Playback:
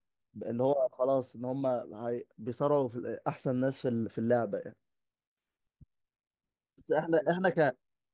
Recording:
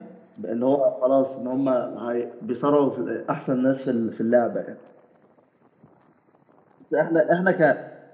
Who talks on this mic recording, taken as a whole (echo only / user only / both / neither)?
echo only